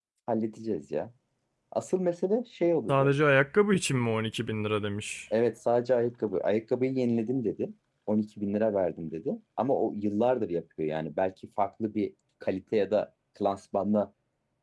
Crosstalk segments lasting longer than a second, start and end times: none

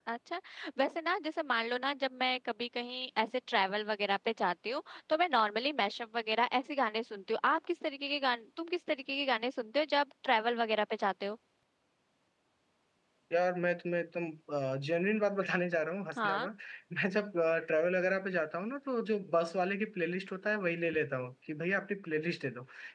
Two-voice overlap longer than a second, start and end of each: none

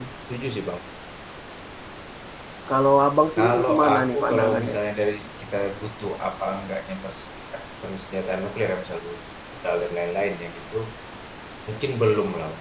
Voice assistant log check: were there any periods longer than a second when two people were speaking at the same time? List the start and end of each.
3.4-4.8

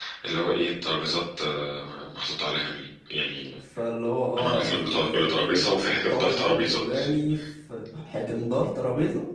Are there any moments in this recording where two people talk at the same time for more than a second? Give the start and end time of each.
4.4-6.8

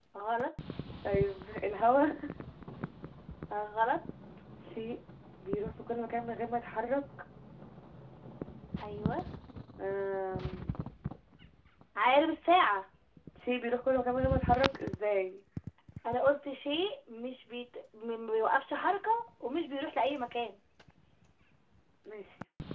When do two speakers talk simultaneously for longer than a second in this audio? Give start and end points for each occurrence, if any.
none

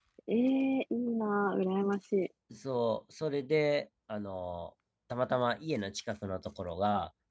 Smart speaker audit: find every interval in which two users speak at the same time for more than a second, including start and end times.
none

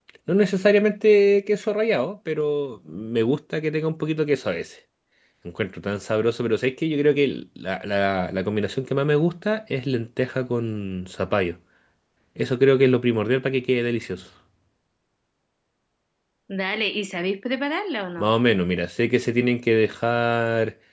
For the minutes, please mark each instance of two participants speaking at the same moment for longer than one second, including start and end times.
none

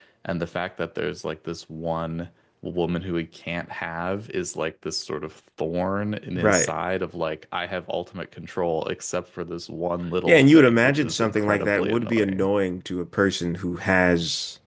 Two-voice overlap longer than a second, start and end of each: 10.3-12.5

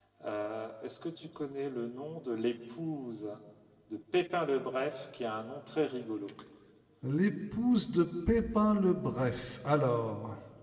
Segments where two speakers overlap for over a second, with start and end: none

